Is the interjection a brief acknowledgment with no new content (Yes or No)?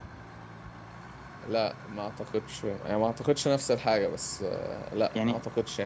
No